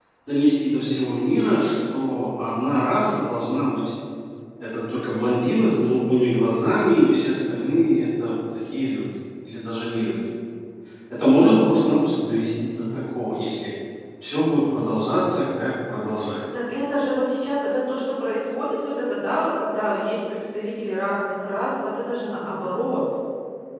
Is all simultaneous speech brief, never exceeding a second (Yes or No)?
Yes